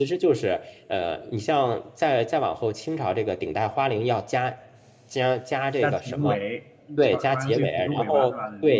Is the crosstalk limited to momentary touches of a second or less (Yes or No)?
No